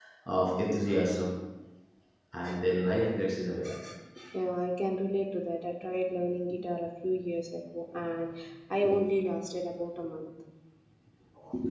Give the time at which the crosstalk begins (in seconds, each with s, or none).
none